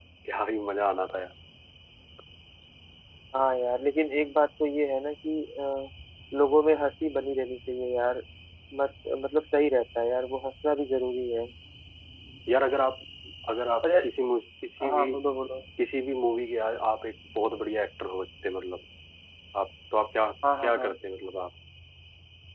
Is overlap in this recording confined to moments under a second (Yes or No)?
Yes